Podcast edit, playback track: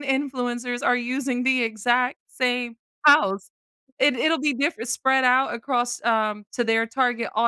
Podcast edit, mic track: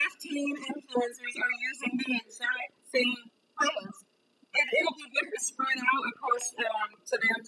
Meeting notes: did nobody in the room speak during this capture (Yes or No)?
Yes